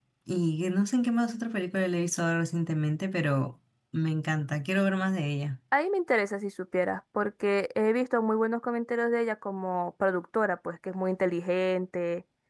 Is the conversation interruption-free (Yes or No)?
Yes